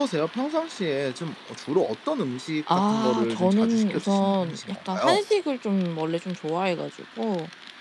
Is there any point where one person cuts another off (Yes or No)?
Yes